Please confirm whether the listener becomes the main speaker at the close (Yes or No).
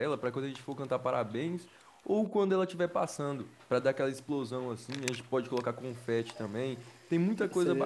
Yes